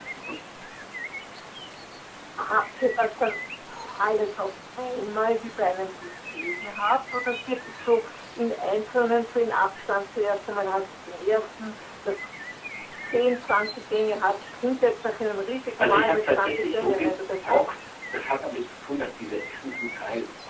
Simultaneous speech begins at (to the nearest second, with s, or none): 16 s